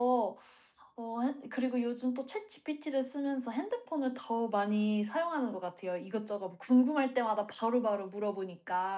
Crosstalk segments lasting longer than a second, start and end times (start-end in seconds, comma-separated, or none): none